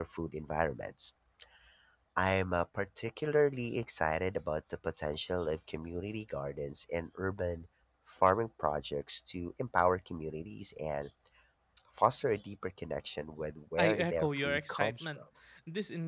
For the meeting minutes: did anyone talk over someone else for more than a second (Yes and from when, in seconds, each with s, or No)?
Yes, from 13.8 s